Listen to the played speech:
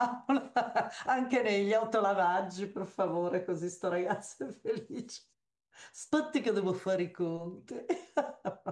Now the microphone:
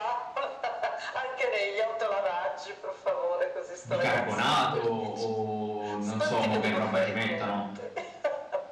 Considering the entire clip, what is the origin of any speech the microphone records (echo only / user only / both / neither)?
both